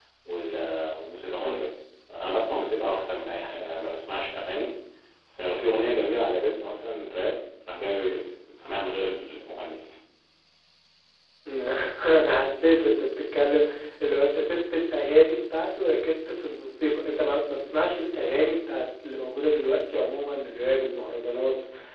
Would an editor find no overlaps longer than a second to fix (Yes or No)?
Yes